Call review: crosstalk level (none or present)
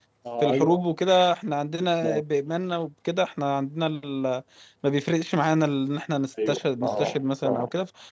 present